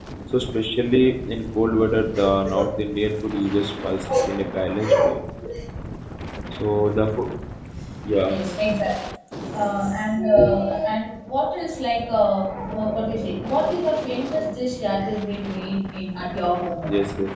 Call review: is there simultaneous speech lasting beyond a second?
No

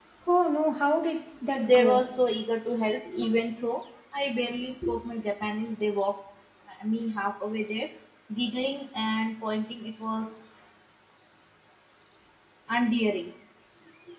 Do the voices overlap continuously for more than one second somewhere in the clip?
No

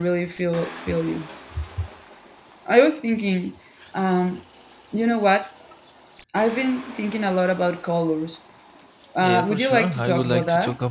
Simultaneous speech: Yes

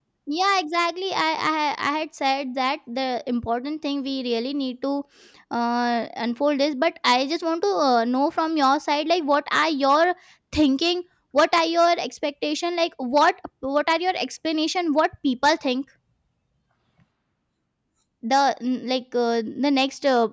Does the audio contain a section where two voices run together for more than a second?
No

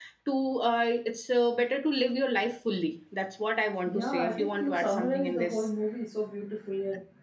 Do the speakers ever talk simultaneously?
Yes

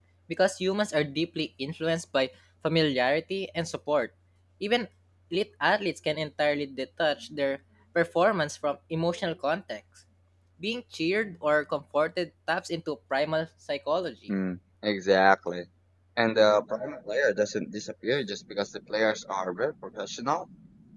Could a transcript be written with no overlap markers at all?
Yes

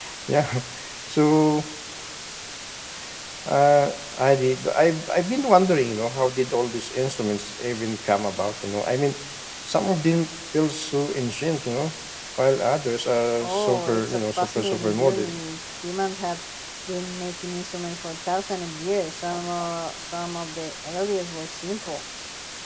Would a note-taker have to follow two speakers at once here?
Yes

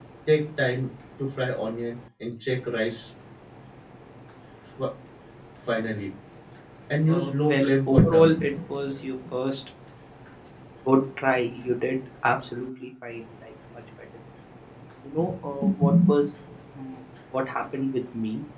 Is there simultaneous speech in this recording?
Yes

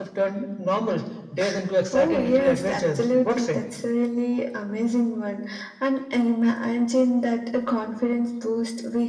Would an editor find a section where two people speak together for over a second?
Yes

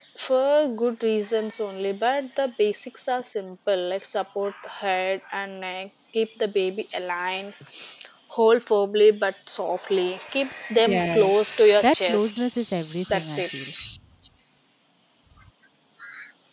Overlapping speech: Yes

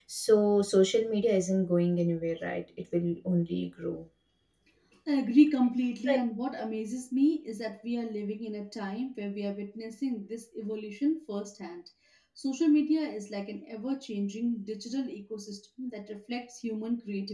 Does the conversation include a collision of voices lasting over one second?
No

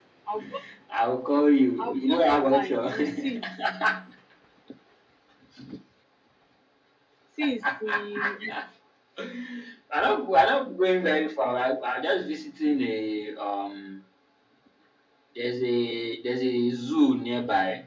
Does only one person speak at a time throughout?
No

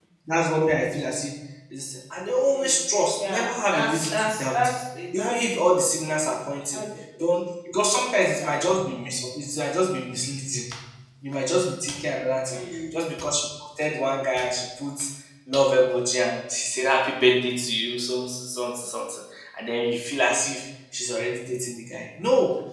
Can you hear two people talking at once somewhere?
Yes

